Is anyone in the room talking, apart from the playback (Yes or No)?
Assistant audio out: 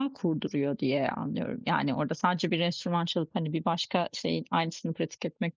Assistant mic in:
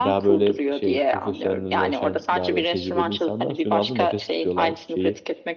Yes